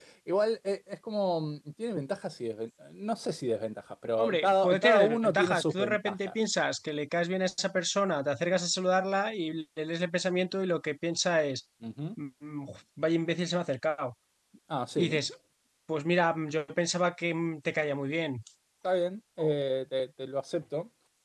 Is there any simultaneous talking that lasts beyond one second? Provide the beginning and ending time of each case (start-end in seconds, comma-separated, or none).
4.2-6.3